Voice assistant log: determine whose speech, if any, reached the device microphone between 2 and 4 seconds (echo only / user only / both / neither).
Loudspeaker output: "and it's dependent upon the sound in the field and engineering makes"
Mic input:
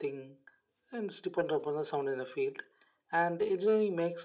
echo only